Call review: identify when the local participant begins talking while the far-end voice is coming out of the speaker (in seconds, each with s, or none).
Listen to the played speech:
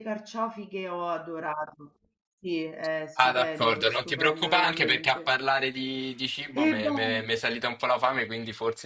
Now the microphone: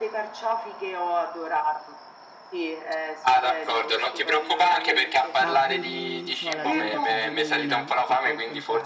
5.3 s